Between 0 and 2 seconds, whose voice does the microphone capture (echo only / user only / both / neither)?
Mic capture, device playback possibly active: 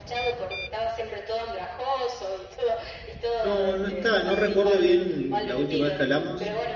echo only